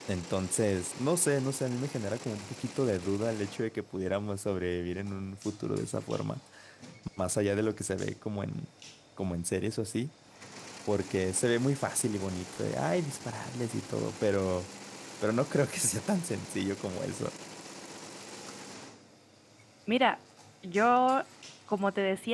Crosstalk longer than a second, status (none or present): none